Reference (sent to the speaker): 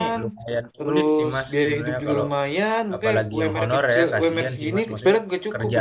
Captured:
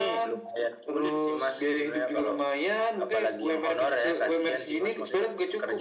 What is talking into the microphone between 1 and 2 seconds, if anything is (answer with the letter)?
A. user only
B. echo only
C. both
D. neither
B